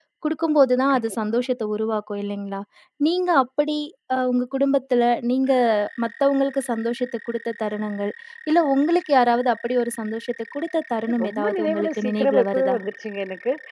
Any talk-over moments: Yes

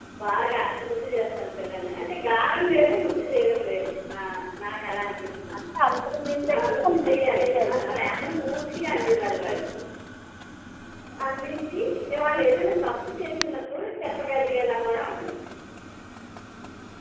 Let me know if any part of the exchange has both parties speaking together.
Yes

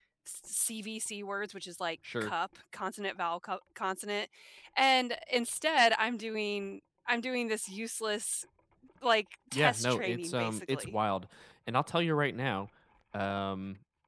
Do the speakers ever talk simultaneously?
Yes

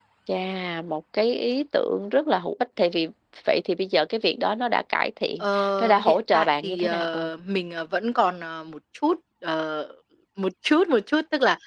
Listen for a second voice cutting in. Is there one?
Yes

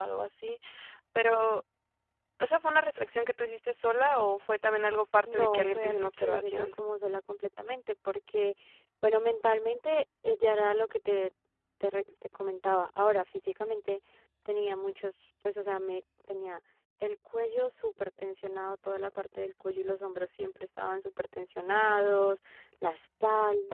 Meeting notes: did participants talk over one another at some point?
Yes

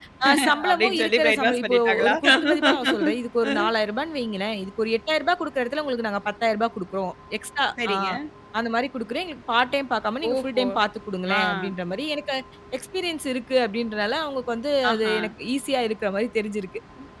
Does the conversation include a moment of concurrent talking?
Yes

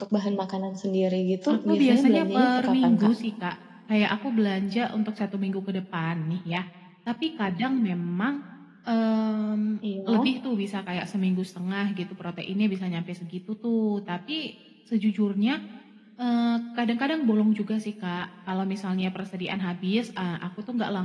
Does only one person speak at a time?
No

